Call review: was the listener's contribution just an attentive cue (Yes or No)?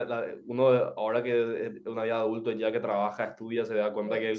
Yes